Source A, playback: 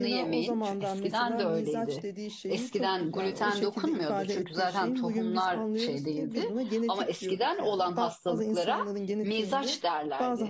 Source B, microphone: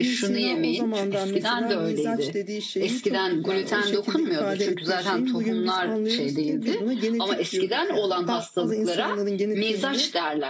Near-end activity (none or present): none